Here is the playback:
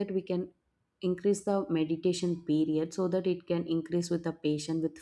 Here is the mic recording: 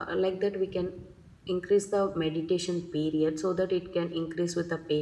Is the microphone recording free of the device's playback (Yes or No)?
No